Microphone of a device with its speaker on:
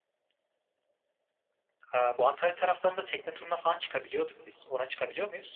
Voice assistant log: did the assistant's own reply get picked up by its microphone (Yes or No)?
No